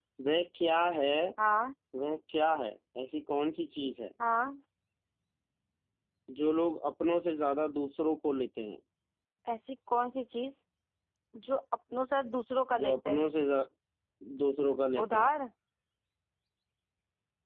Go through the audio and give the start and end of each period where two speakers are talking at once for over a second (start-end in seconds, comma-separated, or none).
none